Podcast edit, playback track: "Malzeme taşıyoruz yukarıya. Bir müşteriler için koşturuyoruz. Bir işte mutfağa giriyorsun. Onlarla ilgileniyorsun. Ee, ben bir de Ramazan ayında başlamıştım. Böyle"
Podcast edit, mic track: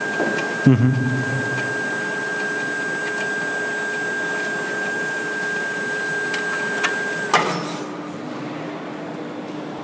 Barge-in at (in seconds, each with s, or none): 0.7 s